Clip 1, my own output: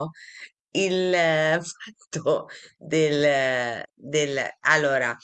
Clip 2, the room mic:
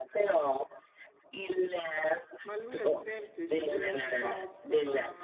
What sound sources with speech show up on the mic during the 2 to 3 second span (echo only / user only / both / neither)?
both